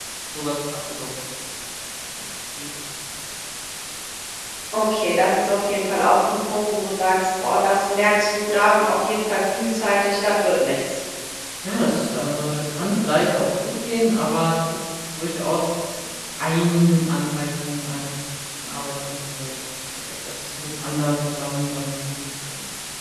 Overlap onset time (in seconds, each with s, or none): none